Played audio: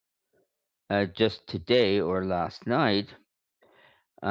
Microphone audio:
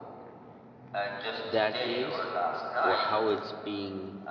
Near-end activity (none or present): present